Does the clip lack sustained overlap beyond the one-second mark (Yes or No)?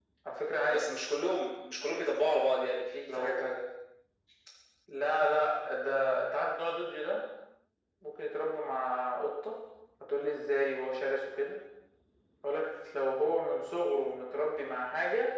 Yes